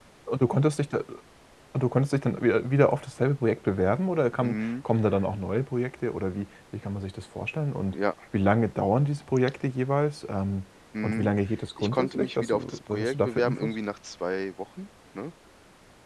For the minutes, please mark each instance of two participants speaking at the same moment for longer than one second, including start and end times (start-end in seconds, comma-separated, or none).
11.8-13.8